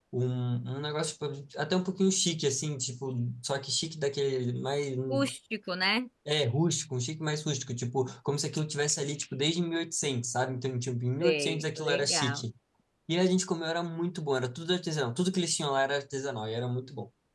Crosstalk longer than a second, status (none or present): present